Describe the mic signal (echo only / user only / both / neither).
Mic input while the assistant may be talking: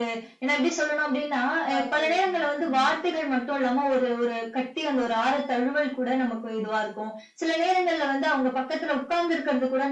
both